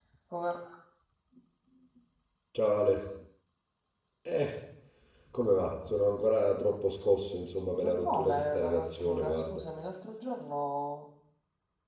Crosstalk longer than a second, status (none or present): present